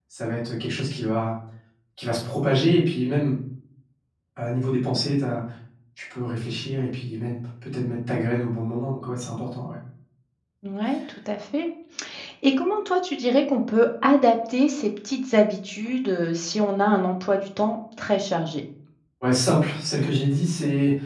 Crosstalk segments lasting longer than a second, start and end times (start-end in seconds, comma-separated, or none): none